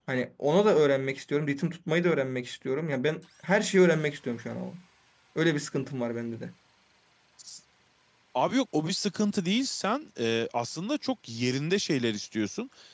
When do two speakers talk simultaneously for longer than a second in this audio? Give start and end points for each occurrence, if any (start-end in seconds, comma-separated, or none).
none